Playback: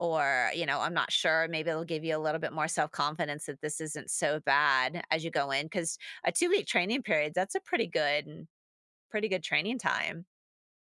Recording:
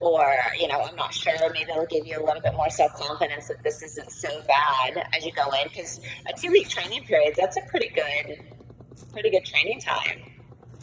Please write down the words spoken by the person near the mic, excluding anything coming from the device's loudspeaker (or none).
none